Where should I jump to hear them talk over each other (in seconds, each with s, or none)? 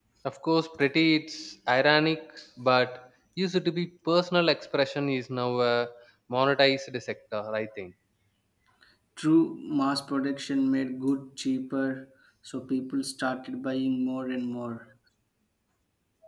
none